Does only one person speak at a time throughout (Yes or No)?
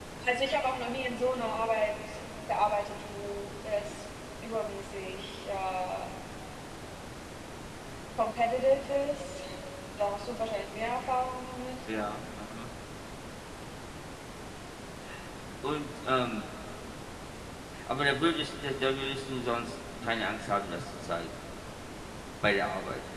Yes